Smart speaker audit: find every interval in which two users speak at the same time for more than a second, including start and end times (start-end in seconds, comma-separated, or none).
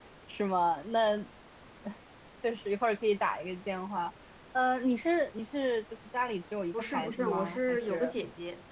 6.7-8.1